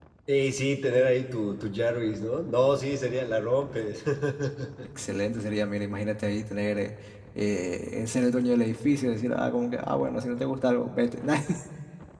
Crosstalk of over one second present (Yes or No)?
No